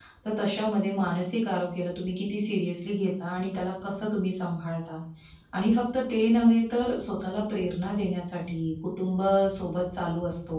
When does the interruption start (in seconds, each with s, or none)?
none